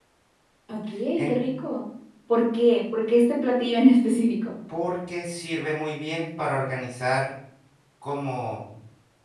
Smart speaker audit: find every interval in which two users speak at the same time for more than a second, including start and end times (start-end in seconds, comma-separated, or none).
none